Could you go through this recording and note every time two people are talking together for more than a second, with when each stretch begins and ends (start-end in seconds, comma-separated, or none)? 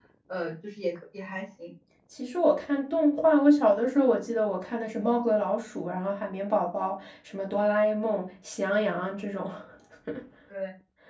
none